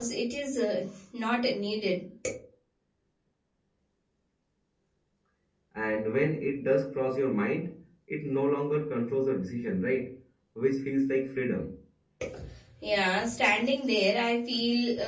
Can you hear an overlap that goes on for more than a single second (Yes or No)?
No